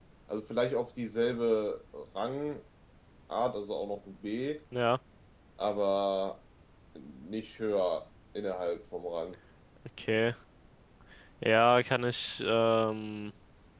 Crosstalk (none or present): none